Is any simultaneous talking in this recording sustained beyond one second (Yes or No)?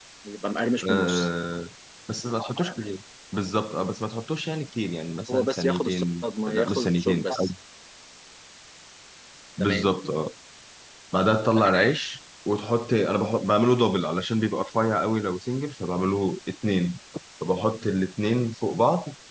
Yes